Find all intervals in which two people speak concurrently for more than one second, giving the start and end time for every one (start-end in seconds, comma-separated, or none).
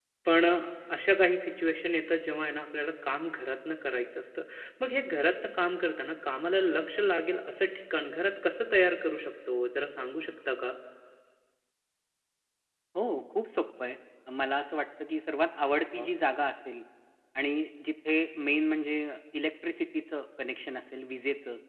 none